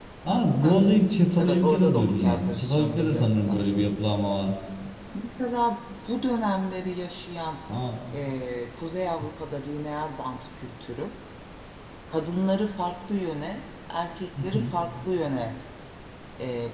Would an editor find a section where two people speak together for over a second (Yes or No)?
Yes